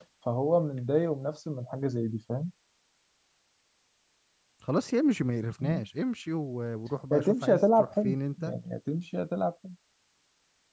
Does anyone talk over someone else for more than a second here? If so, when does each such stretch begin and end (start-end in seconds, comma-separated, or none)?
7.1-8.5